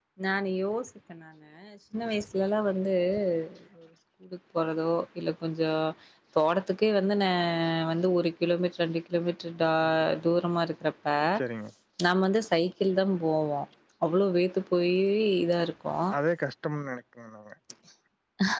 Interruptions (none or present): none